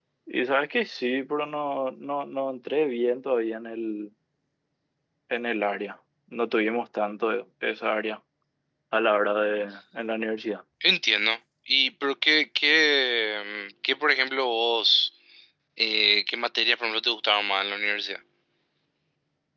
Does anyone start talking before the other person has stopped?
No

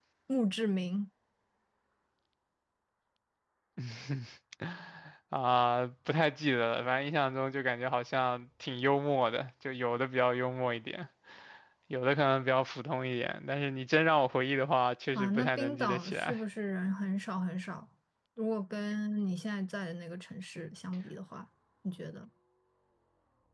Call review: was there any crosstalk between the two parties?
Yes, from 15.2 s

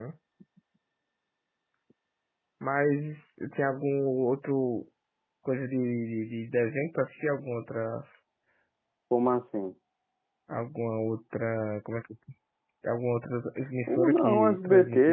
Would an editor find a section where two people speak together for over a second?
Yes, from 13.9 s

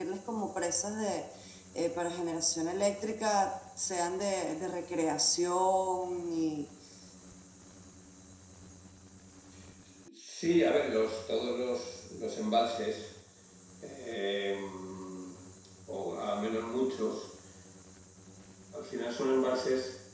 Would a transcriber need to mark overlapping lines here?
No

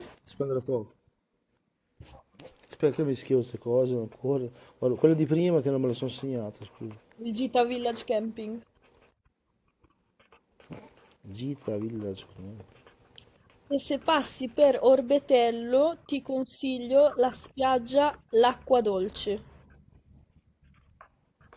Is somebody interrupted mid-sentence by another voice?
No

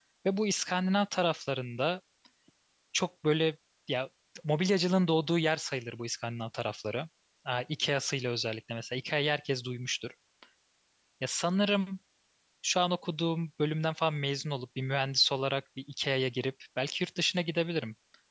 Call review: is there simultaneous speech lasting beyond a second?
No

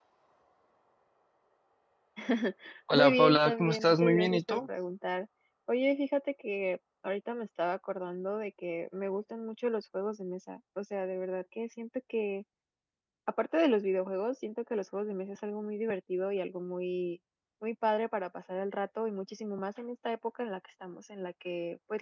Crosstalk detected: Yes, from 2.9 s

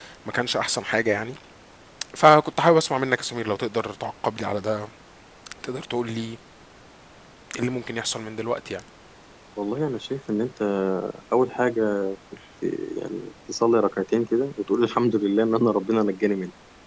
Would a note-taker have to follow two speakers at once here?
No

